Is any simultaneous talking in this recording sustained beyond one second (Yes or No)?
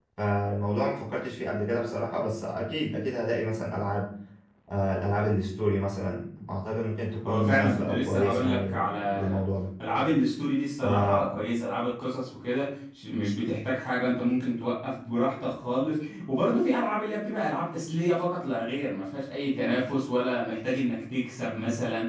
Yes